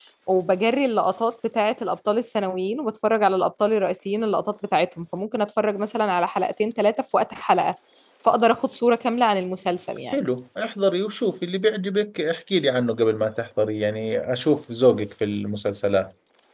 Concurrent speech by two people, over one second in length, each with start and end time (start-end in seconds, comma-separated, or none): none